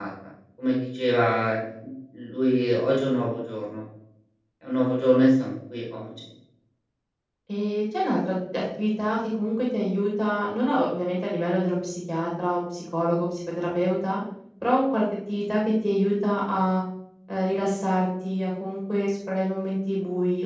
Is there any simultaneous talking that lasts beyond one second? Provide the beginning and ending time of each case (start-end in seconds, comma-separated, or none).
none